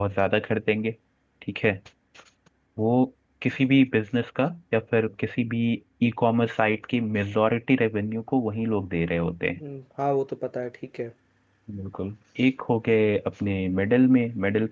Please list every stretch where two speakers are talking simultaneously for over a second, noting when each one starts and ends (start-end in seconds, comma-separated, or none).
none